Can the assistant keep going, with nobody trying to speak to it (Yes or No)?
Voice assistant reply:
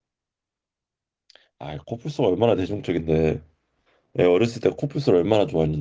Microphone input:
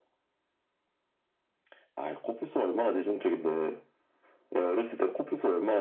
Yes